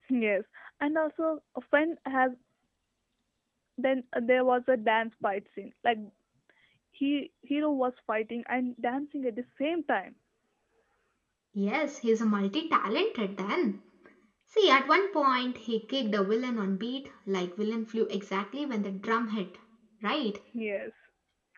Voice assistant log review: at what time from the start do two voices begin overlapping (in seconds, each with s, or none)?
none